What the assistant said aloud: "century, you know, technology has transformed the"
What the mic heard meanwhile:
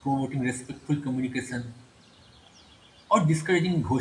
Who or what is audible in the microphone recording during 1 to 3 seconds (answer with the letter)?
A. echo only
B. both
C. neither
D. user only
D